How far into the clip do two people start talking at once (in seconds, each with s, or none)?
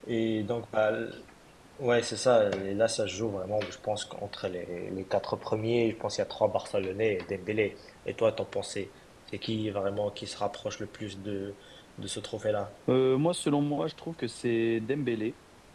none